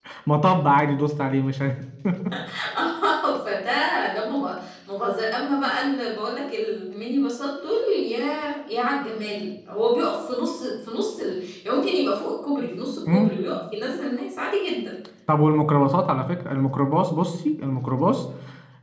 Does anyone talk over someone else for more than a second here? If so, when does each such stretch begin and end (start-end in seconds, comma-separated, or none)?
none